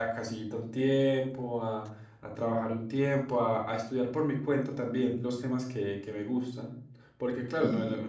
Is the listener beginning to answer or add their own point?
No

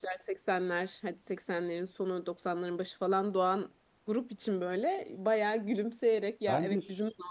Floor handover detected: No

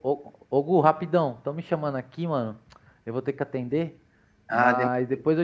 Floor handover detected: No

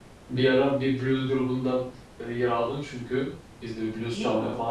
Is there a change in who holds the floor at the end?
No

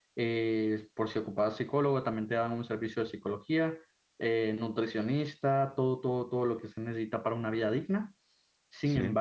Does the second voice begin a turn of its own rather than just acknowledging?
No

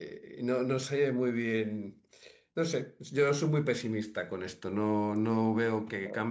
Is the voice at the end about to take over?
No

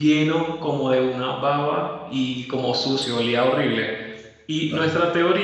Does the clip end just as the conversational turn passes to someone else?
No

